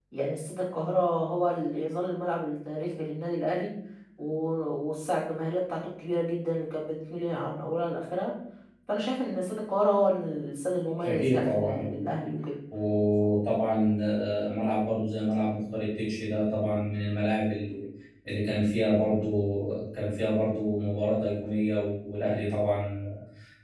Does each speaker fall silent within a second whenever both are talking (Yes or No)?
No